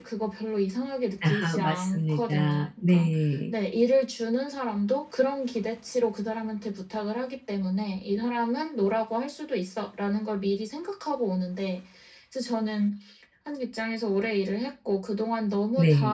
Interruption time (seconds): 1.2 s

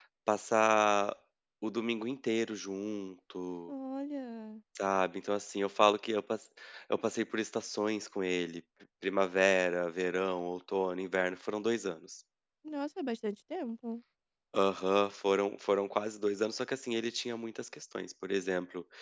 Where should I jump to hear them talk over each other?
none

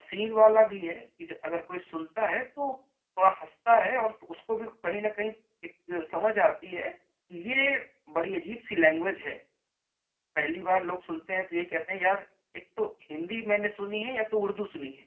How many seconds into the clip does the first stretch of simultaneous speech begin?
none

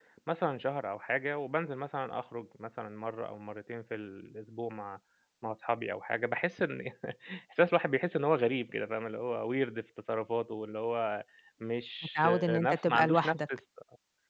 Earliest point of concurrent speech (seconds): 12.2 s

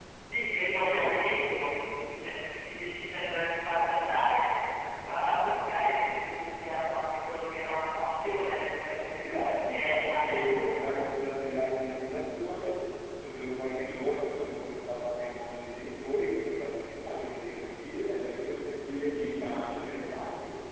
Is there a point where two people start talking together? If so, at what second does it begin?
9.2 s

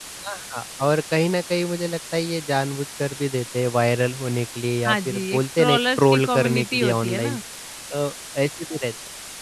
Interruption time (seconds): 4.8 s

